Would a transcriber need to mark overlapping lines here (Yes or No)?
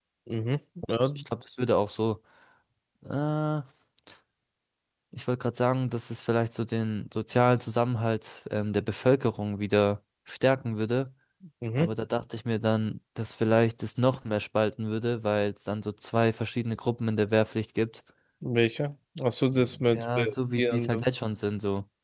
Yes